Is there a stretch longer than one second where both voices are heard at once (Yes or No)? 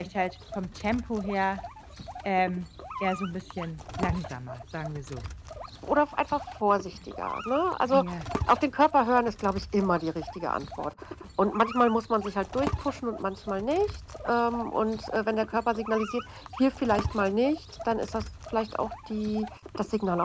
No